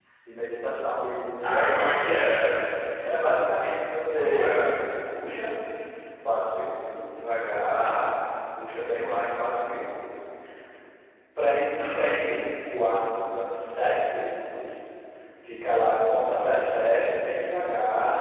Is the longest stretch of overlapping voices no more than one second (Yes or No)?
Yes